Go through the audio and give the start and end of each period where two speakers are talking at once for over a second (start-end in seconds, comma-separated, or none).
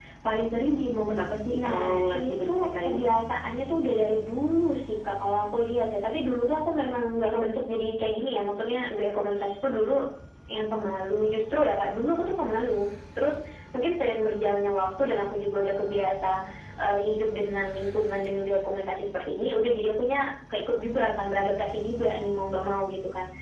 1.5-3.0